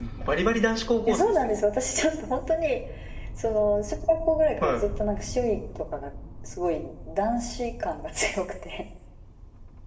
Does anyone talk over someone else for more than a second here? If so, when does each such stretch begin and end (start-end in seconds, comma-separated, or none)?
none